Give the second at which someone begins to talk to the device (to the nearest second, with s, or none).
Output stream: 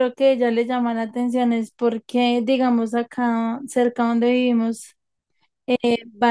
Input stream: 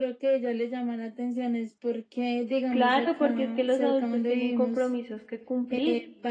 3 s